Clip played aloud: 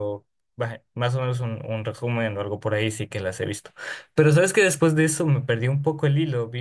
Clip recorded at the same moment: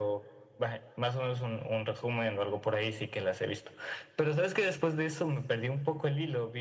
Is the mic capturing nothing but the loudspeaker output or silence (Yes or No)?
Yes